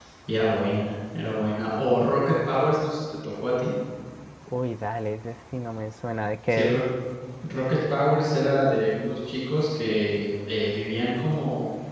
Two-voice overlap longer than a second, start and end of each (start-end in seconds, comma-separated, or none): none